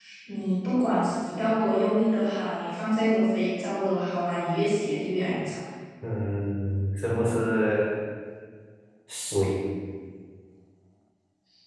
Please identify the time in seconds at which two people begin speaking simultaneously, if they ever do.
none

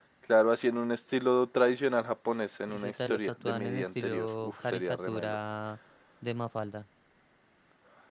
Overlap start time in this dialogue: 2.7 s

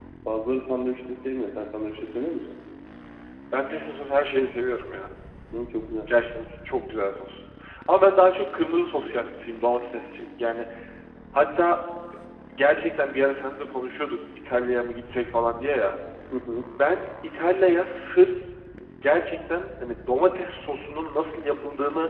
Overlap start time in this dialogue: none

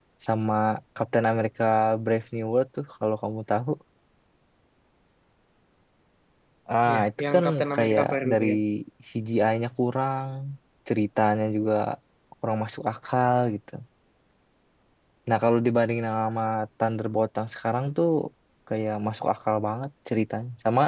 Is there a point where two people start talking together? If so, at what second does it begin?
6.9 s

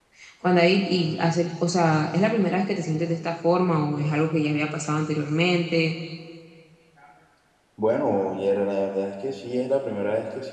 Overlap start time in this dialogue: none

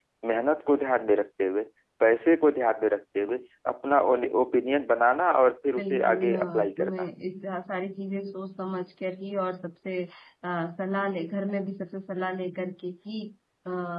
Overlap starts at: 5.8 s

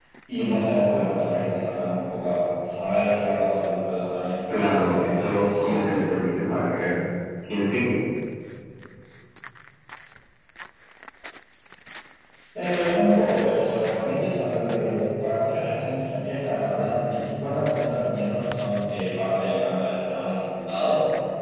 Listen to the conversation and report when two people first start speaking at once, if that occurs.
4.5 s

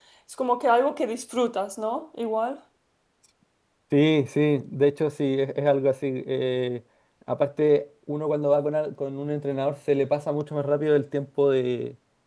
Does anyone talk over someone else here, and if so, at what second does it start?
none

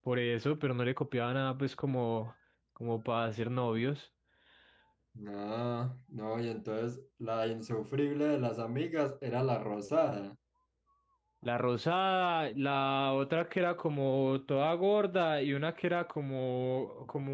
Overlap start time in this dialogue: none

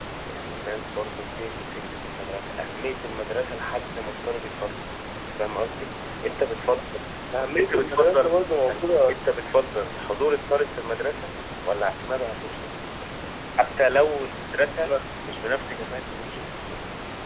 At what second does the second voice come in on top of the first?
7.6 s

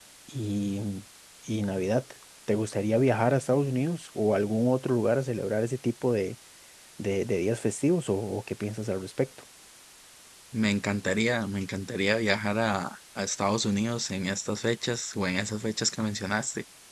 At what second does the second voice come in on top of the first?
none

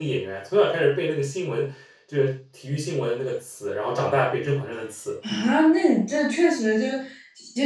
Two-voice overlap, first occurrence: none

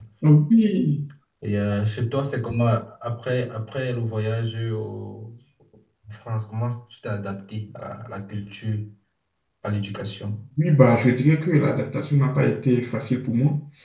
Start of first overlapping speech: none

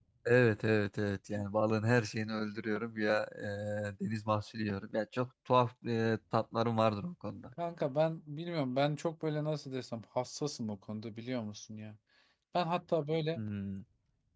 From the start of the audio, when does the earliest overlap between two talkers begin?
none

